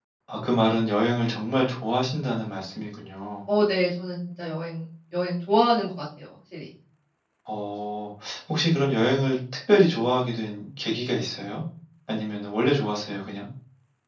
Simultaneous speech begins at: none

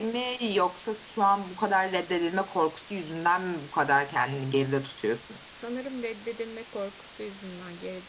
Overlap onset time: none

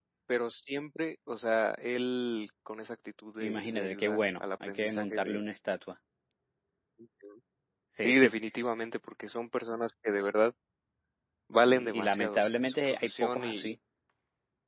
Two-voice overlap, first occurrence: 3.4 s

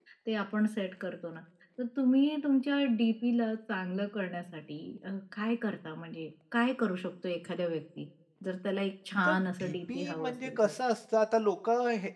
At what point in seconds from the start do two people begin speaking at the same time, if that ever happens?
9.2 s

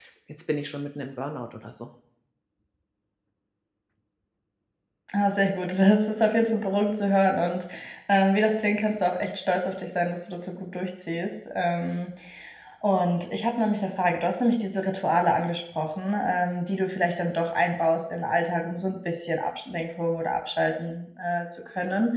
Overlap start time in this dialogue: none

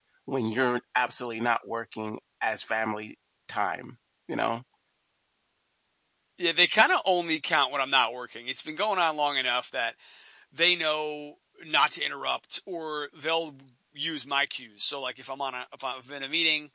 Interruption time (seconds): none

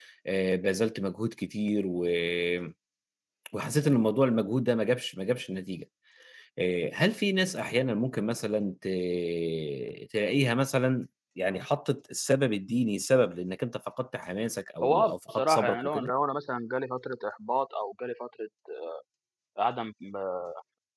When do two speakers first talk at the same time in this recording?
14.8 s

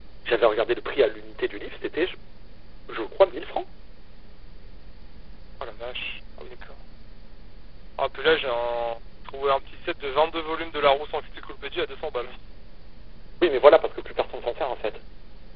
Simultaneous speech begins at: none

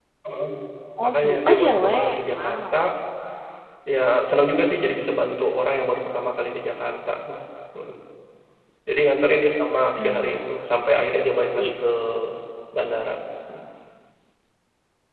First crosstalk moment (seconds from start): 1.0 s

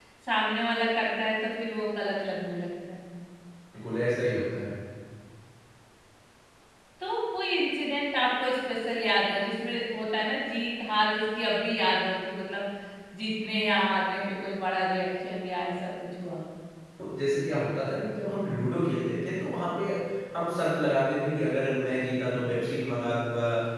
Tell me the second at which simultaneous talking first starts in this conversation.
none

